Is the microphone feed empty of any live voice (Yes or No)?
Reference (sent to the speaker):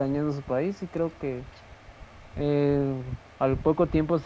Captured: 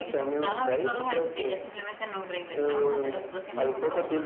No